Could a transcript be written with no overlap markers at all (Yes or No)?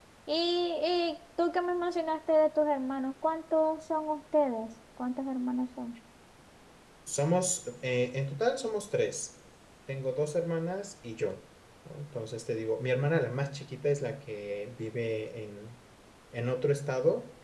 Yes